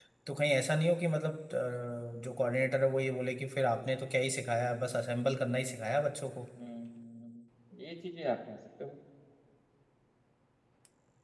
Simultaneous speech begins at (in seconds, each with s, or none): none